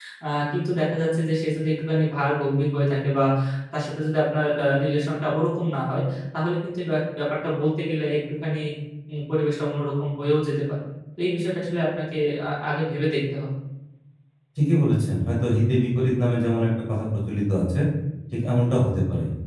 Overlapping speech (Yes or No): No